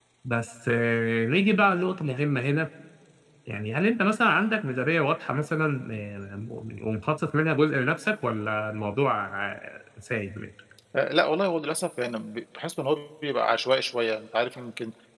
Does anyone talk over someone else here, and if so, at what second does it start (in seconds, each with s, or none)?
none